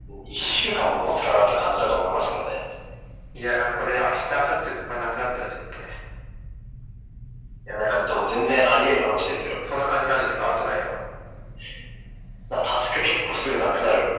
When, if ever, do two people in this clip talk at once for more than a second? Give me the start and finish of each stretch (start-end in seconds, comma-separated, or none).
none